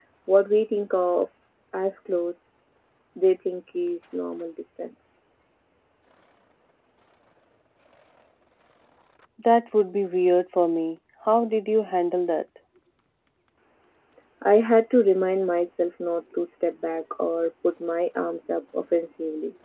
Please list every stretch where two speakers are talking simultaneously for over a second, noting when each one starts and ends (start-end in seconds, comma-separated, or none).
none